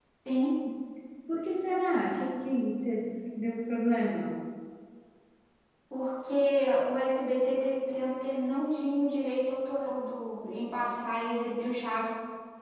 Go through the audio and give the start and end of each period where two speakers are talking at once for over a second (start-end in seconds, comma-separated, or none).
none